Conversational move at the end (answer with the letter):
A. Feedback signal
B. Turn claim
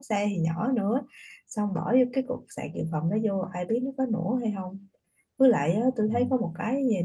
A